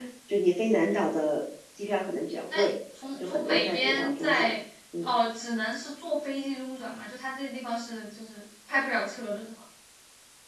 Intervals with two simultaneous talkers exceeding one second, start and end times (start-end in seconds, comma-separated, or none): 3.1-4.6